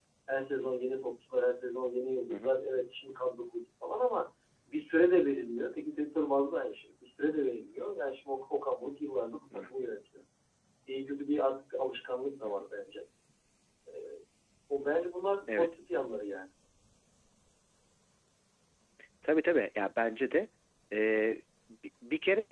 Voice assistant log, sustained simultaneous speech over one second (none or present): none